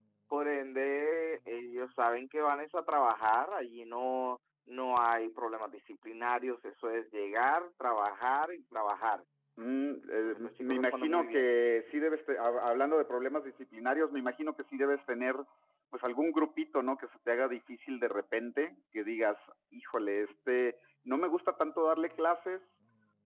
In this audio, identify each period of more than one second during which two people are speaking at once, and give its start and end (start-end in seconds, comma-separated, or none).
10.2-11.5